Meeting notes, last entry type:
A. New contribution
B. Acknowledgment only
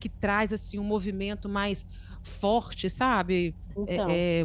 B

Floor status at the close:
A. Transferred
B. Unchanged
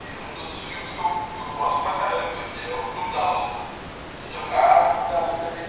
A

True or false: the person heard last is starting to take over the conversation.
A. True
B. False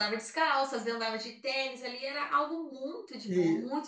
A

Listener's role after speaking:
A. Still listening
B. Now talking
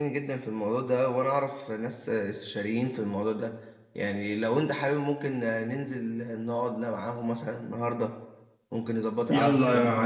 B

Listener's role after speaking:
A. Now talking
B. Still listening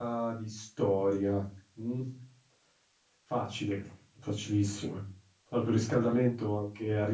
B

